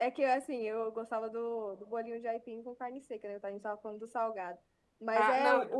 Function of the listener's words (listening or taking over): listening